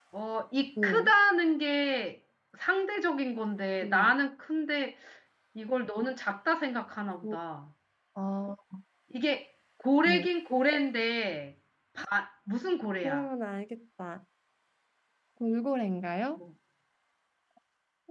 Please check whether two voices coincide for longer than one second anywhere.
No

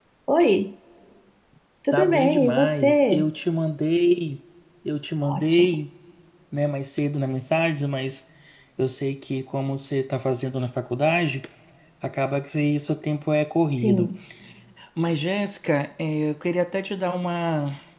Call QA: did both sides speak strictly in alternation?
No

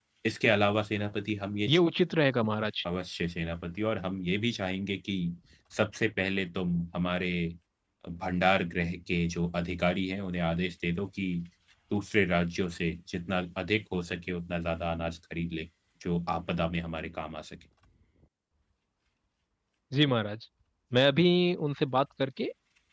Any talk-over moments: No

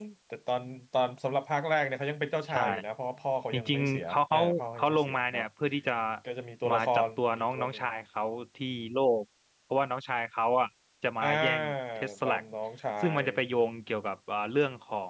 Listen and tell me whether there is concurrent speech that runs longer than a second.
Yes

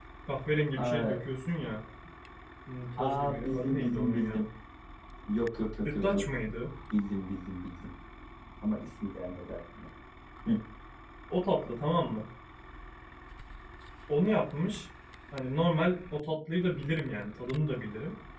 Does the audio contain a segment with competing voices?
Yes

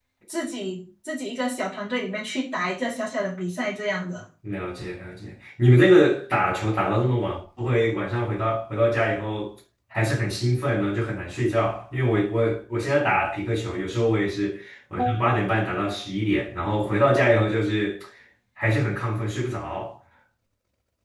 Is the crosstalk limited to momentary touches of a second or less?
Yes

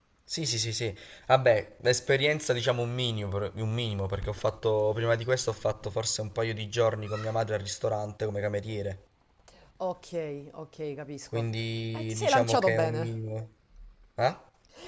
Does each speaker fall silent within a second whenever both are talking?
No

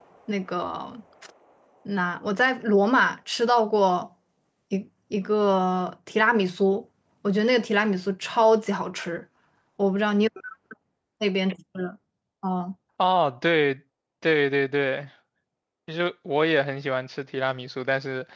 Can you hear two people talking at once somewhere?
No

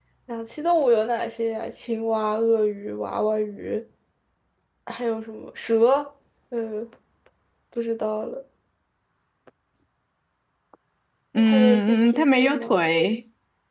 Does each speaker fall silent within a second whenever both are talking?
No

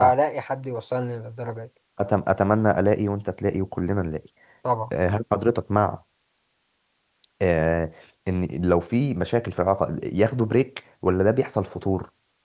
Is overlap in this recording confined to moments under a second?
Yes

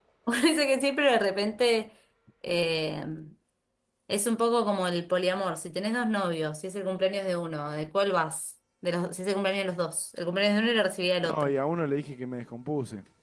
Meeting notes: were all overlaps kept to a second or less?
Yes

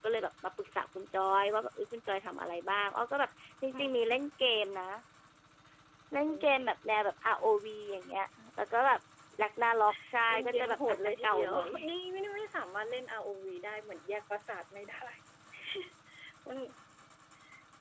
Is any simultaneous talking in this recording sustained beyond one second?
Yes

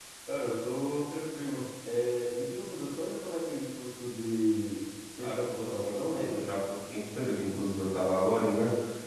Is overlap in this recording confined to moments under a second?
No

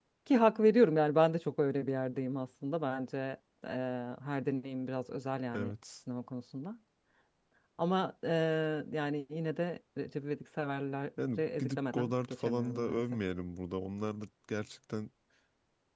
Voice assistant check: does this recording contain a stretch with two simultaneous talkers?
Yes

